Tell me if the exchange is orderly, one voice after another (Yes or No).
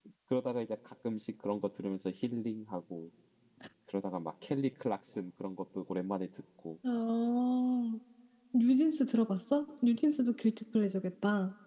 Yes